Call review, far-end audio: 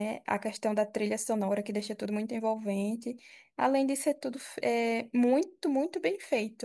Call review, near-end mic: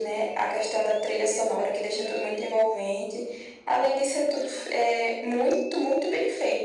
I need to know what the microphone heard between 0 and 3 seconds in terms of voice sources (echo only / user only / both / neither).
both